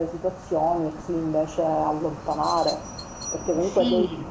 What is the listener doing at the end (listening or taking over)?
listening